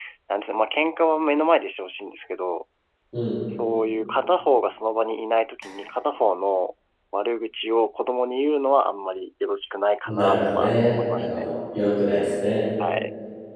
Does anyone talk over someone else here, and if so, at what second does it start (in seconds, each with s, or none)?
10.1 s